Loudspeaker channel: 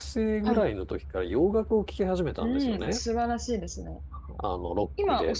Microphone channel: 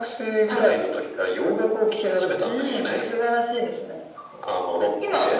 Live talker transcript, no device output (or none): none